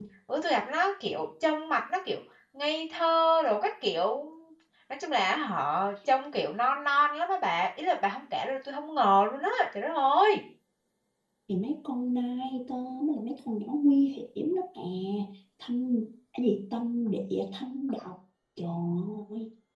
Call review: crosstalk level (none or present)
none